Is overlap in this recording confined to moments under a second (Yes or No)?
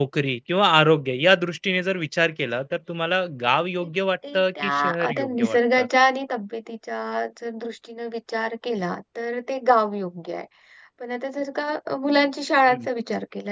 No